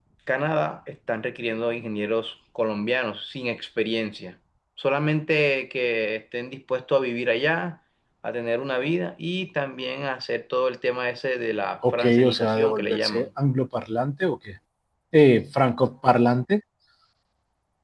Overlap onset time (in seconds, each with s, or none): 11.8 s